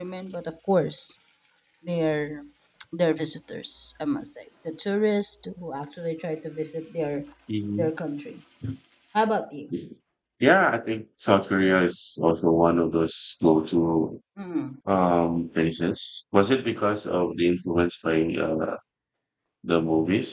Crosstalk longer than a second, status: none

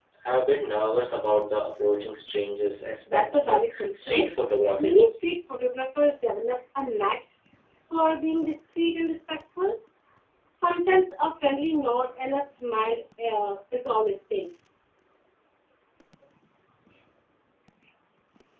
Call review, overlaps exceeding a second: present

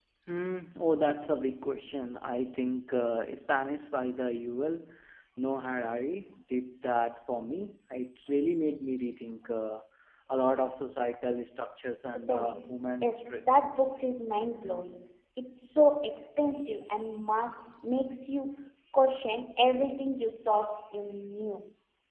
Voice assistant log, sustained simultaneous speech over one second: present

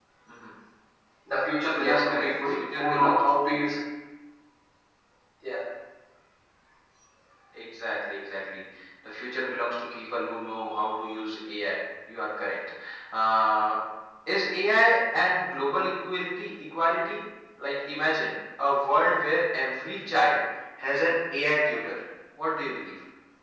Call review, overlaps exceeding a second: present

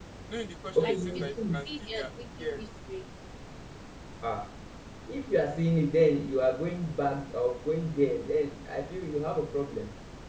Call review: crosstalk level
present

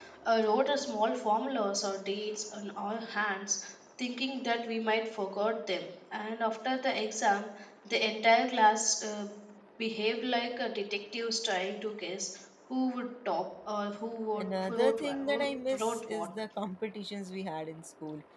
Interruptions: present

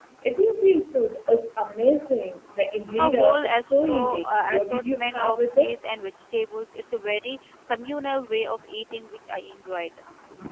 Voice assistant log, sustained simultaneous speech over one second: present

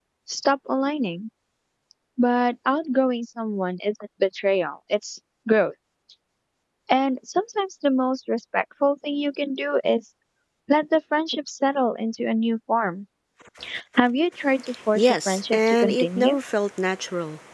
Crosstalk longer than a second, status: present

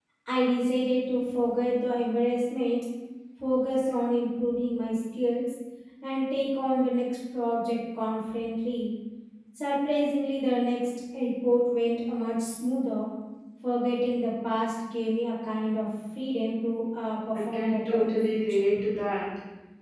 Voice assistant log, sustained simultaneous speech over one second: present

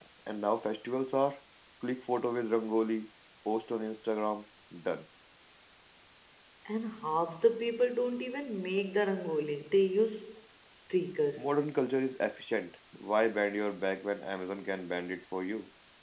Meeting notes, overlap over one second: none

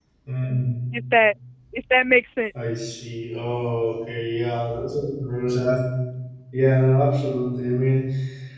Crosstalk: none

